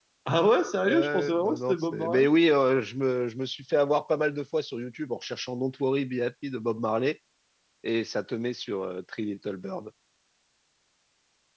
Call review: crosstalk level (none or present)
present